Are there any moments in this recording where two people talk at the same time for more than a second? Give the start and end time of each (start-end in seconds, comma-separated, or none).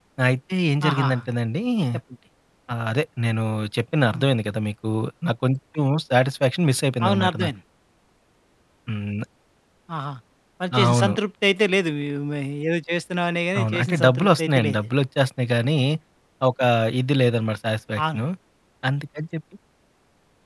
13.6-14.9